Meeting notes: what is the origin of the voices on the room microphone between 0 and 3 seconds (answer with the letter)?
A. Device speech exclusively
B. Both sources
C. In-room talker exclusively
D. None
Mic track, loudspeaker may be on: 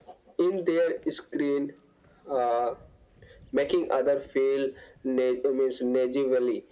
A